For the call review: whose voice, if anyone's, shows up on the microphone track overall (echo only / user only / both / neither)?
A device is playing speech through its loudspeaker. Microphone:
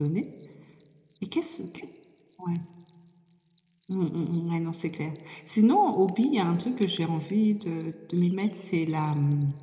user only